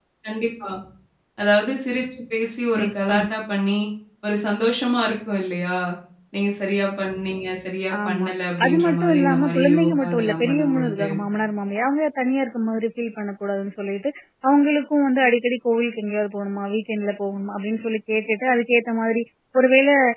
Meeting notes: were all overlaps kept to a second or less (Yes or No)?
No